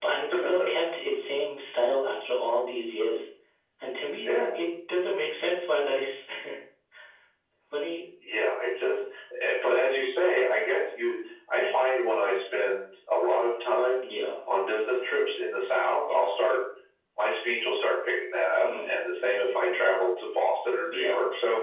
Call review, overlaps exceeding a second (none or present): none